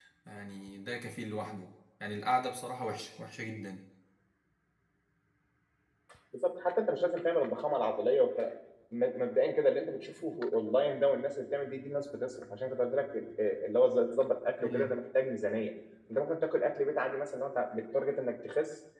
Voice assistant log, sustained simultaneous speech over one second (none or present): none